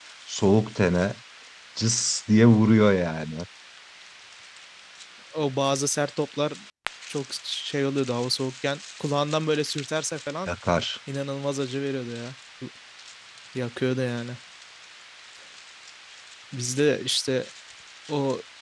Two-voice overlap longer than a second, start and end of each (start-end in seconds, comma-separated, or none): none